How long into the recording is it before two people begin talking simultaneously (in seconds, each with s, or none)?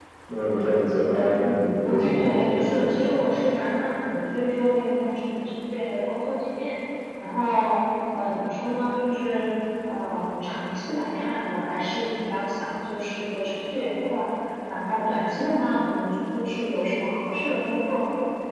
1.4 s